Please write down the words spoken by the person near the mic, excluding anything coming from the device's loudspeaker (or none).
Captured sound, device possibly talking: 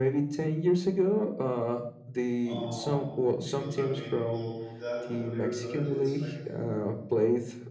um because i mean well that copa libertadores it's like